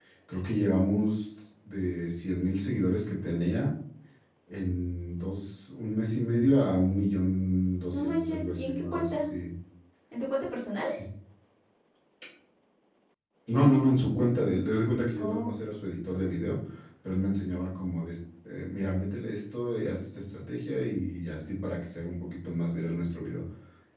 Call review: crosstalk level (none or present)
present